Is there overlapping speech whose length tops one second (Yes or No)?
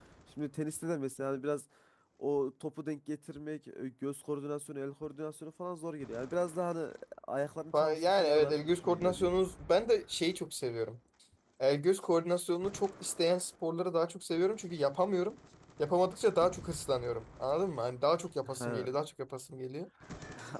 Yes